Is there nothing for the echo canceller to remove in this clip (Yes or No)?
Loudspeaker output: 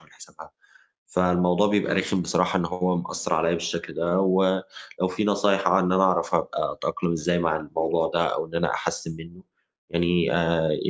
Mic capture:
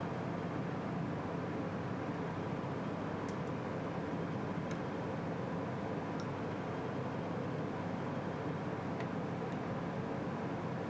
Yes